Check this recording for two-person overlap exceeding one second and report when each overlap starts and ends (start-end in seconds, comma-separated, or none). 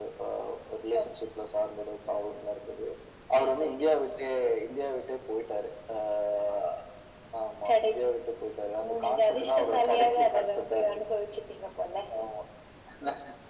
8.8-11.0